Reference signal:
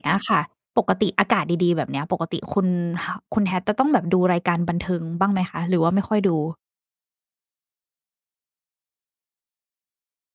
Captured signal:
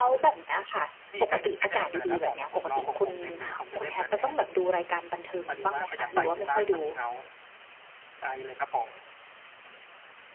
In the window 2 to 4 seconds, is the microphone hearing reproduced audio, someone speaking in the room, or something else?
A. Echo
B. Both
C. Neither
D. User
B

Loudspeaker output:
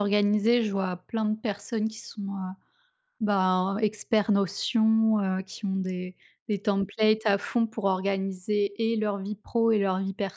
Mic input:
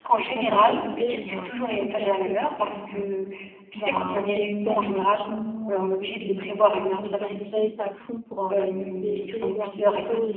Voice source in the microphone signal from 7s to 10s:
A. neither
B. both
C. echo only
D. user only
B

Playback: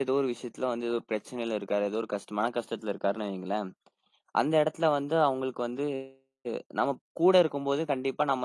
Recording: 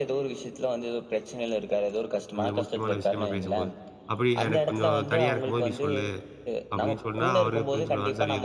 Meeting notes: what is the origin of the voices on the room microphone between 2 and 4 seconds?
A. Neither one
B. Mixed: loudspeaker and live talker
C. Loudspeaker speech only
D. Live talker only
B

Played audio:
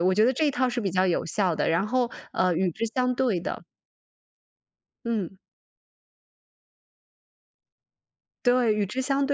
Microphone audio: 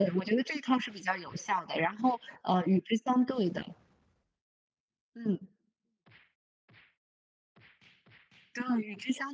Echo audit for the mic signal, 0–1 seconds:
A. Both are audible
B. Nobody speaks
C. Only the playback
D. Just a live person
C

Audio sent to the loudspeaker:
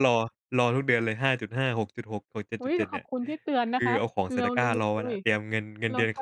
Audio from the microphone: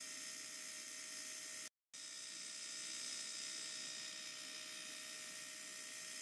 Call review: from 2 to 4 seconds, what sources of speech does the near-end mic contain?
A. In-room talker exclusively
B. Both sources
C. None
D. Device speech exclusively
C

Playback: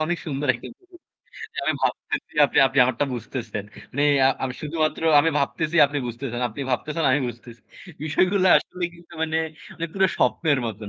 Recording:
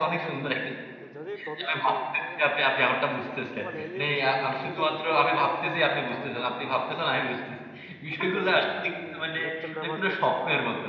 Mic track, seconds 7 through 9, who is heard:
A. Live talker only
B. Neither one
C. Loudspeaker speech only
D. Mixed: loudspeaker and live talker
D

